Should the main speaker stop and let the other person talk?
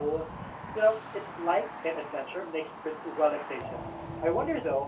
No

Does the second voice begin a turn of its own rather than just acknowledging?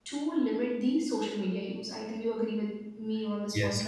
Yes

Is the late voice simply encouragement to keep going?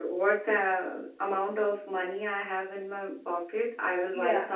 Yes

